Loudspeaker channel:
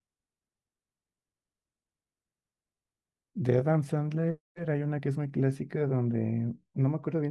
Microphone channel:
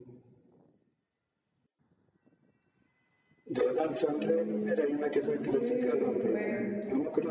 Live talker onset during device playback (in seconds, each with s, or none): 4.1 s